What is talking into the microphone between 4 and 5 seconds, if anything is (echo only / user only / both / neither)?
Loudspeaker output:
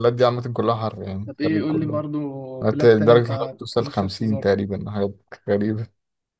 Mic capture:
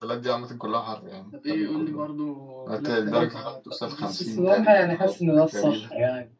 both